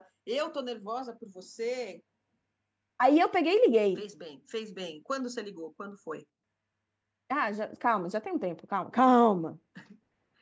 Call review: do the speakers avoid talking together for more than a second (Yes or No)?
Yes